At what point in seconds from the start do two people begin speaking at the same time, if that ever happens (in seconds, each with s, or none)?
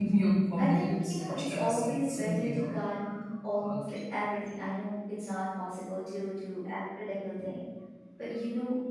0.6 s